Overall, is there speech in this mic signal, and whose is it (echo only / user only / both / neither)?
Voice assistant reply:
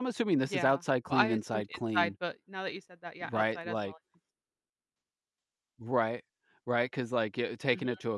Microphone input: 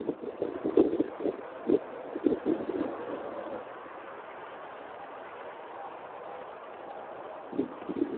neither